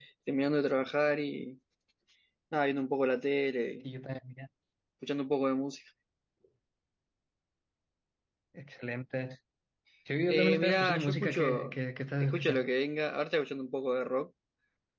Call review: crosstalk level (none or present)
present